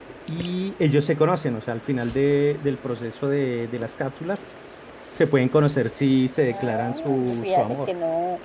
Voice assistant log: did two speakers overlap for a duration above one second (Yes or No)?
Yes